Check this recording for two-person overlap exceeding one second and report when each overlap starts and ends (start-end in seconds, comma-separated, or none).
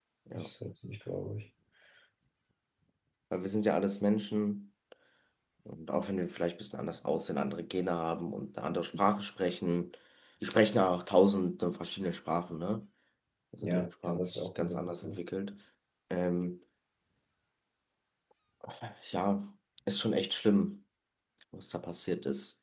13.6-15.2